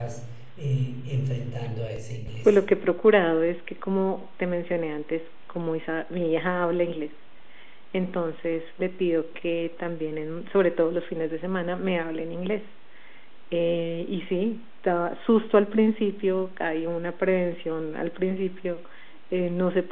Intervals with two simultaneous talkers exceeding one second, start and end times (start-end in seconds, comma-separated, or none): none